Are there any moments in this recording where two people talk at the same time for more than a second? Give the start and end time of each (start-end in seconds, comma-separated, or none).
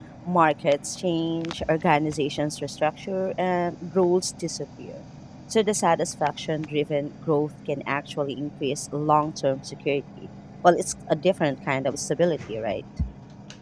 none